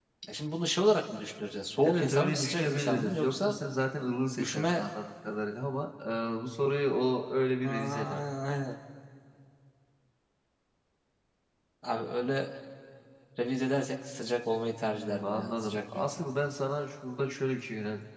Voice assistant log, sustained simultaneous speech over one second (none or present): present